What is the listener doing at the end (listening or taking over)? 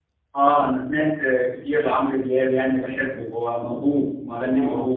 taking over